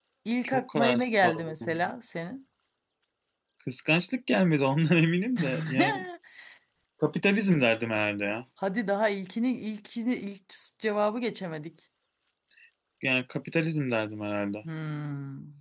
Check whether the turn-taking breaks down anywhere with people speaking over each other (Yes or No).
Yes